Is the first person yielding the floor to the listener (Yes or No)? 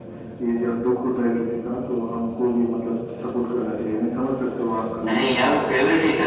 Yes